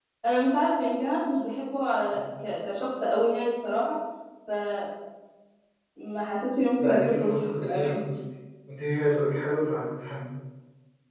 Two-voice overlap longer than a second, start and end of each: 6.8-8.0

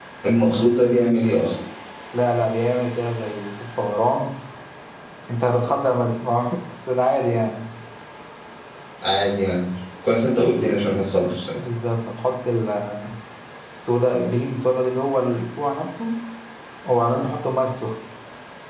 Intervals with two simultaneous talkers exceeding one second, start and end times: none

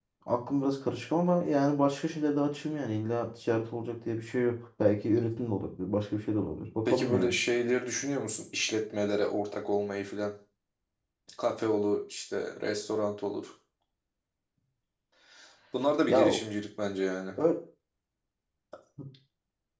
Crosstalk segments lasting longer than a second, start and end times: none

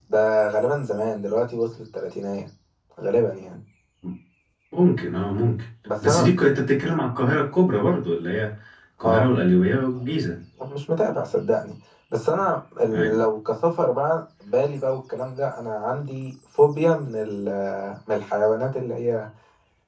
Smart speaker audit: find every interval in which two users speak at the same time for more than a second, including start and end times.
none

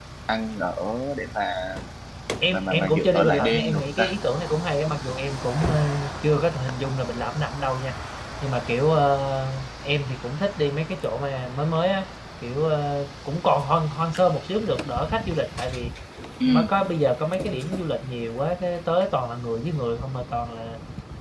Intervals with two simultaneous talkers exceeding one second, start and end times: 2.5-4.1

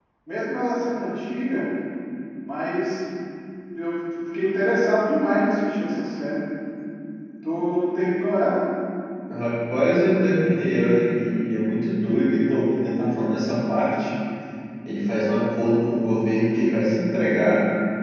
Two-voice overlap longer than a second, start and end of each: none

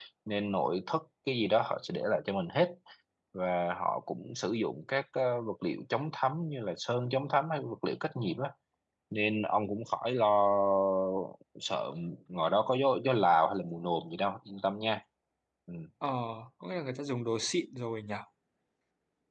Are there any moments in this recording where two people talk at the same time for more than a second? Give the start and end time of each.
none

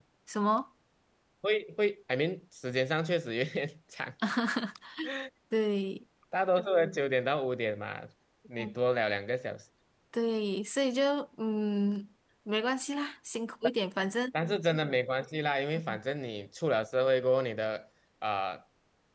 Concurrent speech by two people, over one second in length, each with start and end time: none

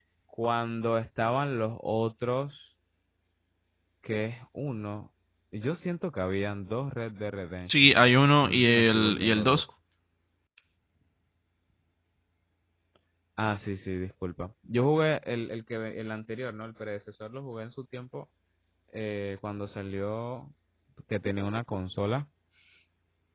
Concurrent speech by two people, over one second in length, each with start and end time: 8.4-9.6

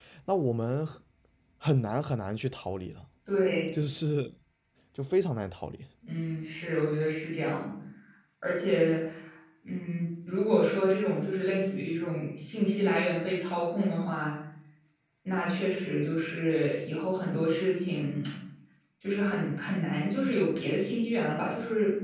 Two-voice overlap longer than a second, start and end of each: none

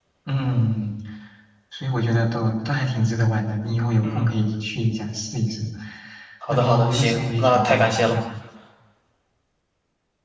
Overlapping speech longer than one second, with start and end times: 6.5-8.2

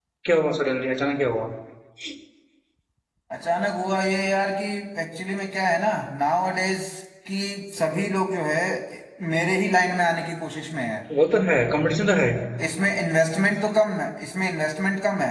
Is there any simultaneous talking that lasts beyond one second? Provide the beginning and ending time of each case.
none

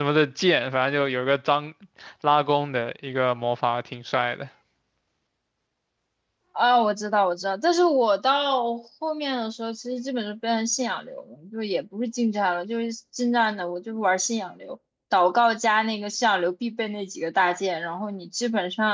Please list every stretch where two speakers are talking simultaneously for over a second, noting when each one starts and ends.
none

